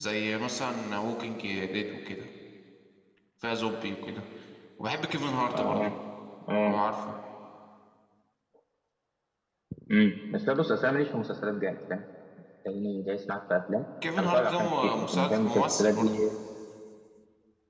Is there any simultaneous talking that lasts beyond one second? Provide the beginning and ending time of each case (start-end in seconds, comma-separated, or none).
14.2-16.1